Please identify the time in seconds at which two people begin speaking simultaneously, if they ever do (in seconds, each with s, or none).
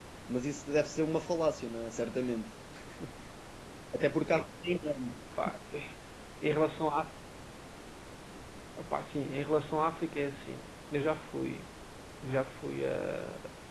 none